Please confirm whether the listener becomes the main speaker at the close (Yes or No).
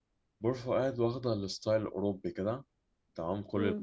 No